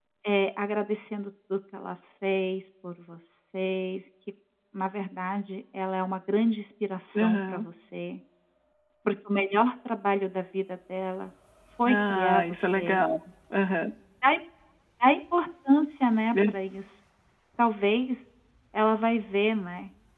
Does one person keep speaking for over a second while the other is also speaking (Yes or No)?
Yes